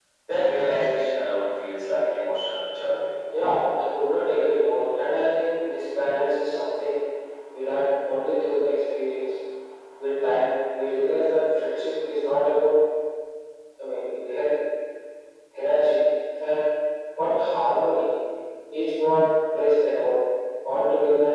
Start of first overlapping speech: none

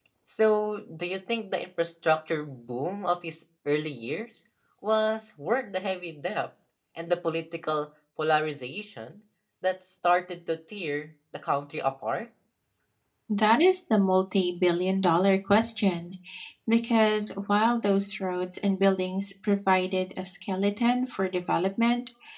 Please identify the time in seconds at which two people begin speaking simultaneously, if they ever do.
none

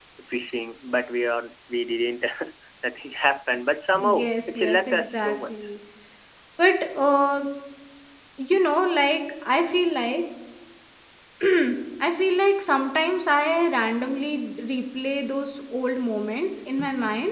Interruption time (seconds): 3.9 s

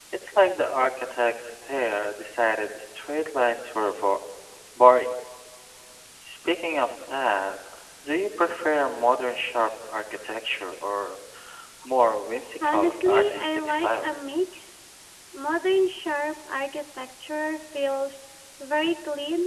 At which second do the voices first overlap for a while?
12.6 s

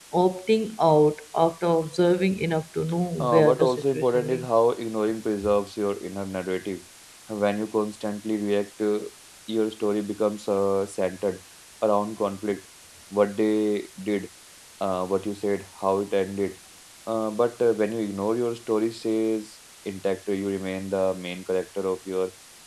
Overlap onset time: 3.2 s

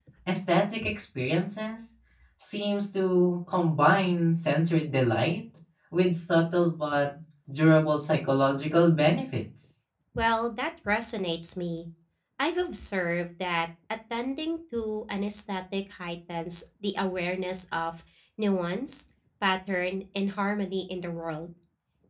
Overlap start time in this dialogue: none

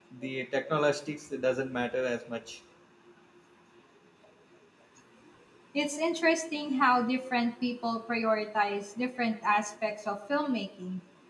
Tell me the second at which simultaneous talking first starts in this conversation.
none

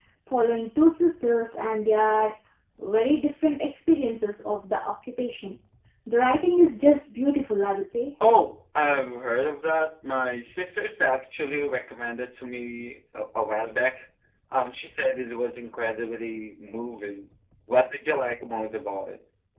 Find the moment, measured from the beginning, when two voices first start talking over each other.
none

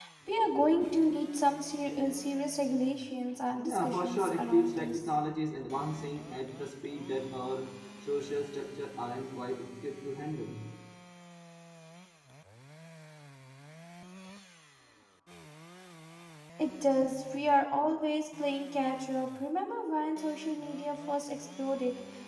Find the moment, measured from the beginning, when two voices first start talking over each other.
3.6 s

